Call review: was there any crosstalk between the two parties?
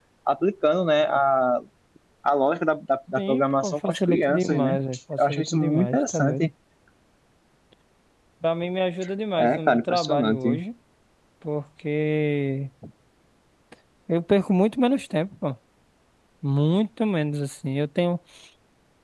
Yes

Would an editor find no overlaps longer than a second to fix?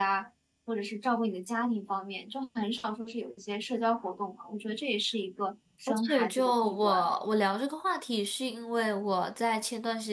No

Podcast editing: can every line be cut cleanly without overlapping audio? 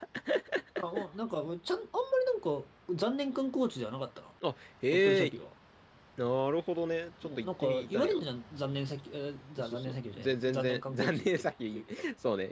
No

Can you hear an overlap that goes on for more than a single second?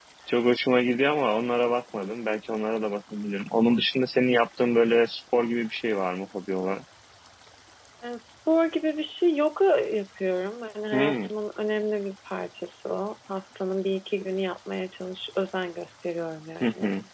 No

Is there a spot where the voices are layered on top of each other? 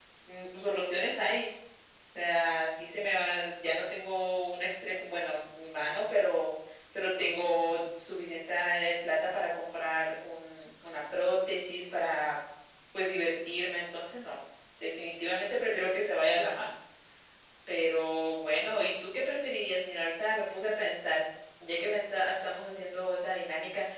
No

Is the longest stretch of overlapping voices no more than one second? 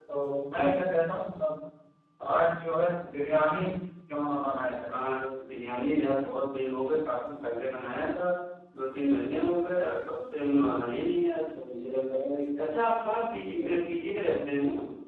Yes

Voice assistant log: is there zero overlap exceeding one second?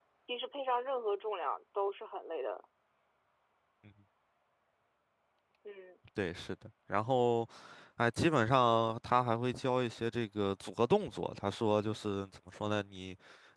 Yes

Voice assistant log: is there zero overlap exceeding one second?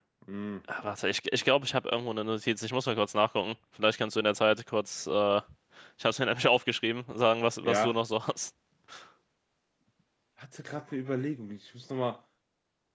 Yes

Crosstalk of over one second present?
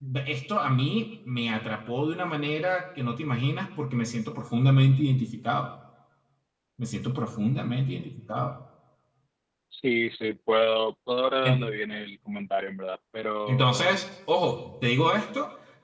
No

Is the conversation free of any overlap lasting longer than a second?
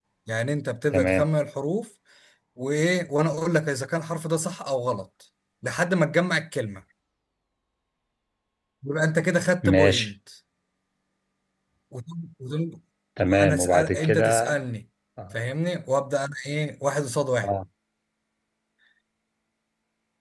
No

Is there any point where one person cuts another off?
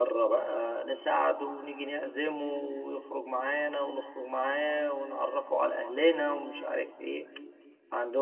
No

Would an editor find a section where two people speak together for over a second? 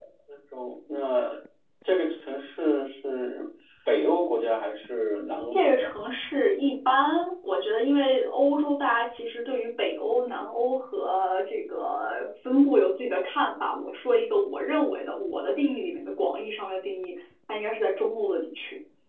No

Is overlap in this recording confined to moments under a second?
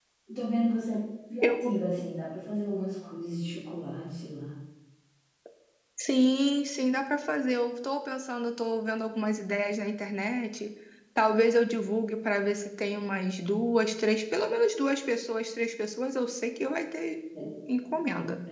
Yes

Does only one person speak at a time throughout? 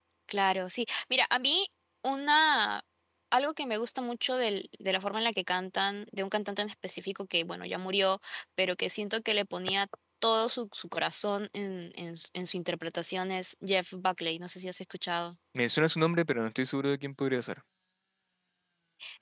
Yes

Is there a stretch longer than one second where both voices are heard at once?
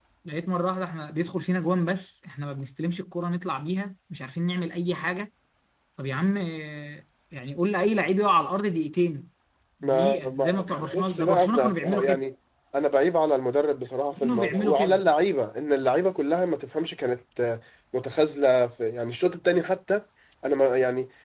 Yes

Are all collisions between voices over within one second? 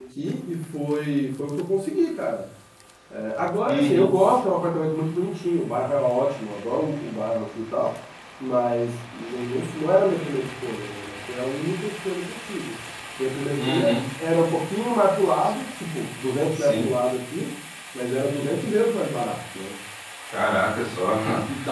Yes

